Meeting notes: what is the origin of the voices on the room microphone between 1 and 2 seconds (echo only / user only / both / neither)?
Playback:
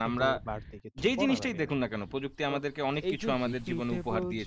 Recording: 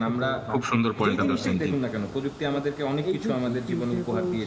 both